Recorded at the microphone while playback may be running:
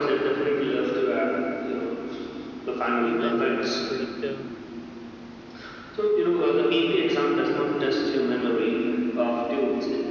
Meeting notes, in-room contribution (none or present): present